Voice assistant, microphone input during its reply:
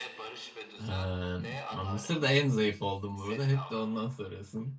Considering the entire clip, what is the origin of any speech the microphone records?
both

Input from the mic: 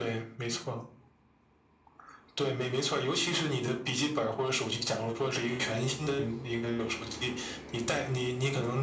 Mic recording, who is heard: echo only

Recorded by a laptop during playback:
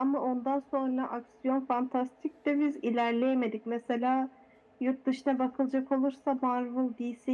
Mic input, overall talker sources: echo only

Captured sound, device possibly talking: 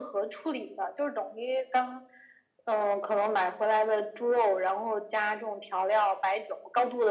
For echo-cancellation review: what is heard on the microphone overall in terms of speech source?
echo only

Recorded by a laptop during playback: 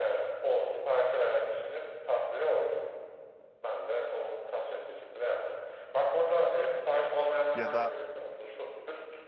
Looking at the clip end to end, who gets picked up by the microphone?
both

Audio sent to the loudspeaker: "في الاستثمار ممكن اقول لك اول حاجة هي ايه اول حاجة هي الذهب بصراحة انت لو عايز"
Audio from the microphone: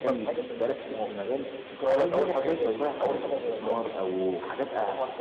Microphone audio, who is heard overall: both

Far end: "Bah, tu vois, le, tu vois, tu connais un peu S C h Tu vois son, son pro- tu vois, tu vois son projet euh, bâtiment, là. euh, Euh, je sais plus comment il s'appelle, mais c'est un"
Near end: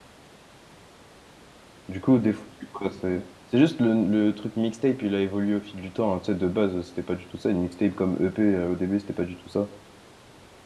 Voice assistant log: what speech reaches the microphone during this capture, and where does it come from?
user only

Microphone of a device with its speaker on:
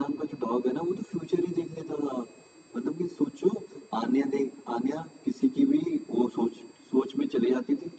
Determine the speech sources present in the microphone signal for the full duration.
echo only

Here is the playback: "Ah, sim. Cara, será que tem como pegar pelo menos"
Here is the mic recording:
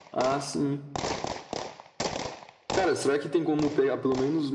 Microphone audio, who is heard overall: echo only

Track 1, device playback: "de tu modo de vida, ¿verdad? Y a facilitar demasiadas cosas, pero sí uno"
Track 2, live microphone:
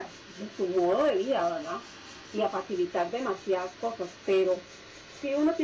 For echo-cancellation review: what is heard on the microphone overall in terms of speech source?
echo only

